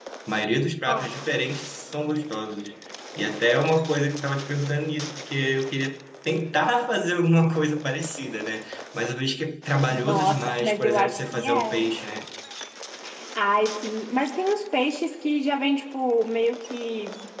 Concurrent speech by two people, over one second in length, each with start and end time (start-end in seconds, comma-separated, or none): 9.9-11.8